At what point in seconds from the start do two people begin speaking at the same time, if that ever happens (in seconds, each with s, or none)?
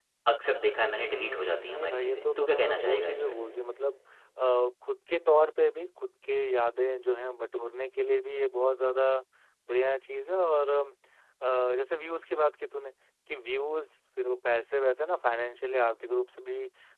1.1 s